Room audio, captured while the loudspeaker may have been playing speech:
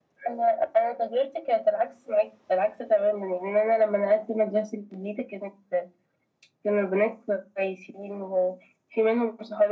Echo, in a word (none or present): present